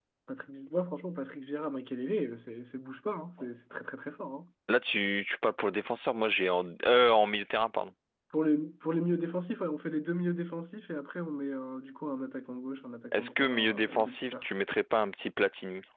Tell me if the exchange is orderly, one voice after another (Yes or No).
No